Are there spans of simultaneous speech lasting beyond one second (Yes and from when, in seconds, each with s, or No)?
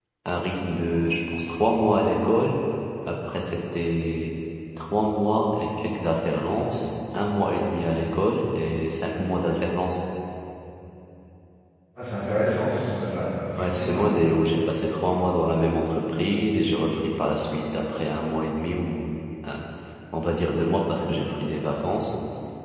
No